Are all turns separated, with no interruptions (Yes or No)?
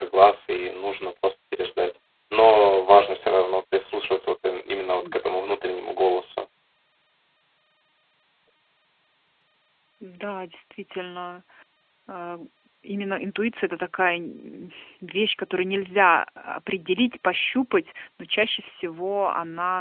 Yes